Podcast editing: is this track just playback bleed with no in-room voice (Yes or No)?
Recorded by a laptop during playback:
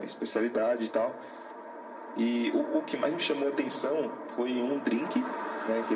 Yes